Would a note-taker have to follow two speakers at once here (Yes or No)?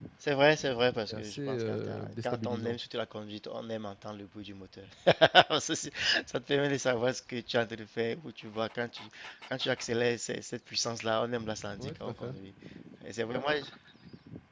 Yes